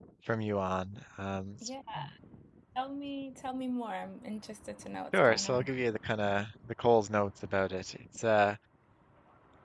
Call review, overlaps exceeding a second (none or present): none